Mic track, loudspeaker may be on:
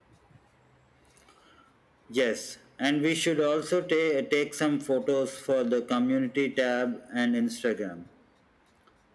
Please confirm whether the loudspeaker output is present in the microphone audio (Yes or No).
Yes